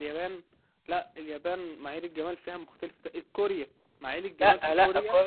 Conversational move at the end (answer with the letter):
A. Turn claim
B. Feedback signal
A